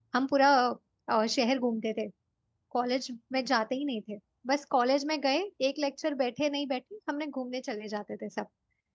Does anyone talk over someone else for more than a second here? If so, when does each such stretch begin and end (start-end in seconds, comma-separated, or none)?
none